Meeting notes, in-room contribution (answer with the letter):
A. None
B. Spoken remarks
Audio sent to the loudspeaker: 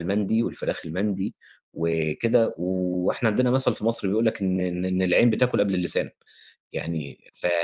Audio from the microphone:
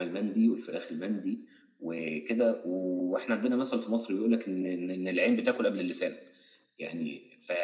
A